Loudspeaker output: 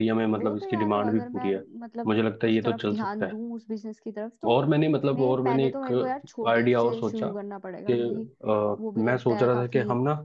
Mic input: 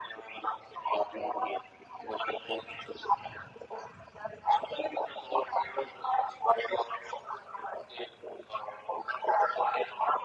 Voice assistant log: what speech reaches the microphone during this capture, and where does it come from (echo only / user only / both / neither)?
echo only